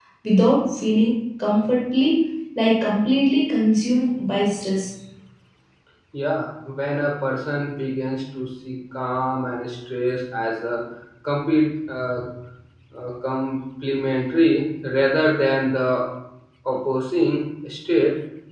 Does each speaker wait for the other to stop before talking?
Yes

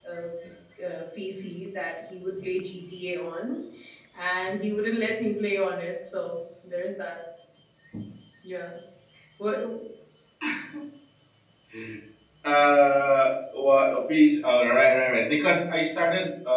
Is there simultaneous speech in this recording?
No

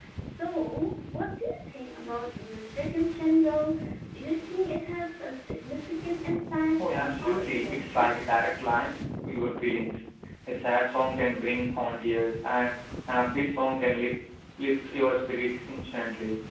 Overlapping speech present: Yes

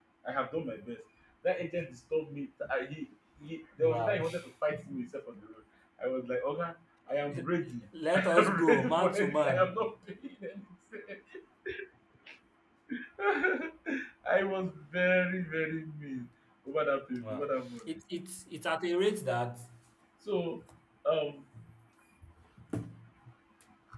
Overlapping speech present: Yes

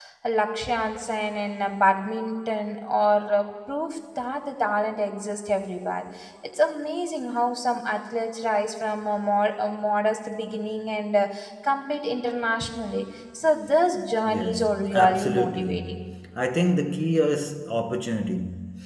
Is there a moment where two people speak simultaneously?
Yes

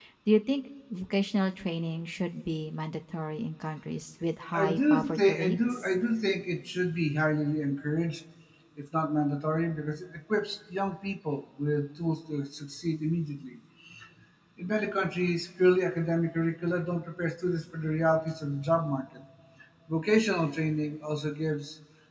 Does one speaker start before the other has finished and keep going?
Yes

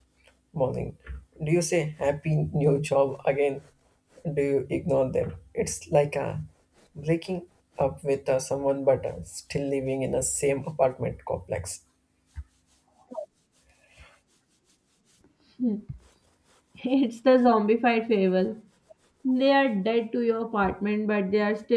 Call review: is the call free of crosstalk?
Yes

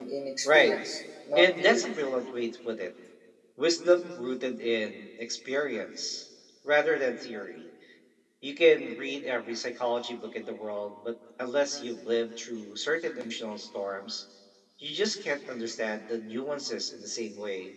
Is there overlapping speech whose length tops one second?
No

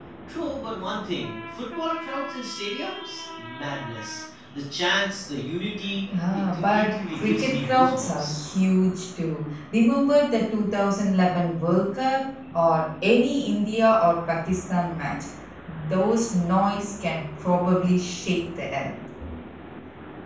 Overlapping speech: Yes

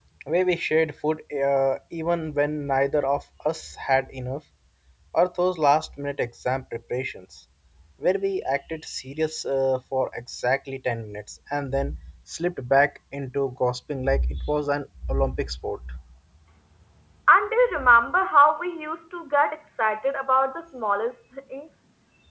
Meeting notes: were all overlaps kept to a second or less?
Yes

